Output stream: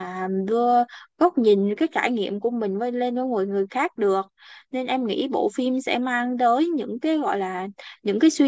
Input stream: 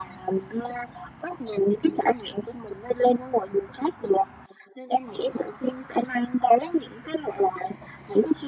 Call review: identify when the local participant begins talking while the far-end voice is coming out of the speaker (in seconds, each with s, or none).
none